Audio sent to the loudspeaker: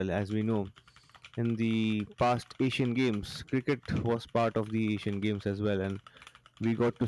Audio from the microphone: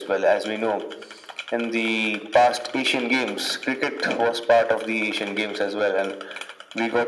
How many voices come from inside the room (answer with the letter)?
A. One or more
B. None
B